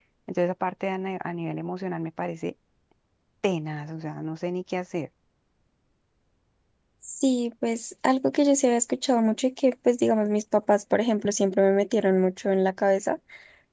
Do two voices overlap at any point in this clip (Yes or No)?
No